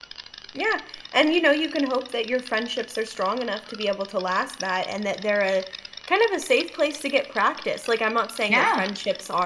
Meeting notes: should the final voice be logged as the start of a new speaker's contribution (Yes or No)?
No